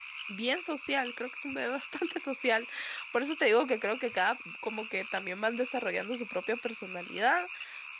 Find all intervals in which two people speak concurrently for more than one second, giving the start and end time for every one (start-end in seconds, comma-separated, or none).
none